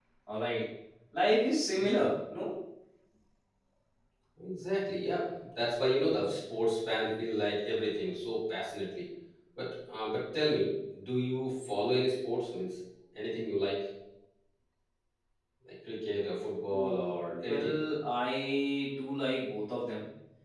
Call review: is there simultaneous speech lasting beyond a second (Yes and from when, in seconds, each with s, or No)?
No